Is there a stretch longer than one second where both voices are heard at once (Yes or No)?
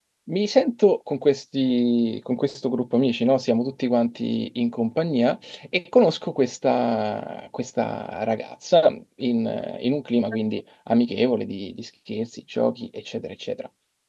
No